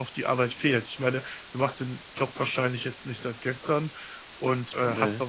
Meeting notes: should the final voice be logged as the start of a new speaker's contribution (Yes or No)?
No